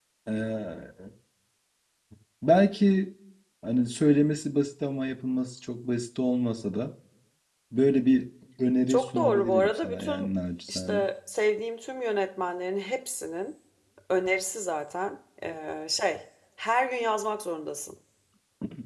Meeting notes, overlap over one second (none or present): present